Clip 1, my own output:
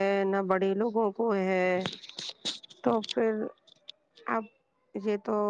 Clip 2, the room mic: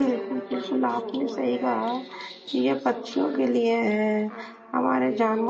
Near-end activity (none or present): present